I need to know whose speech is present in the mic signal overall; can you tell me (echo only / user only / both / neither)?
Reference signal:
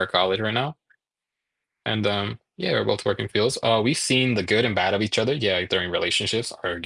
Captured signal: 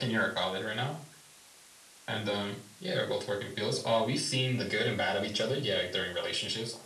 echo only